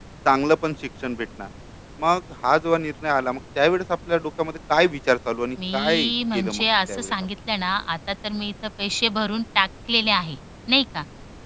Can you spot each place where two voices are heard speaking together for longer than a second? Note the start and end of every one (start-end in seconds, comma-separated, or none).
5.7-7.1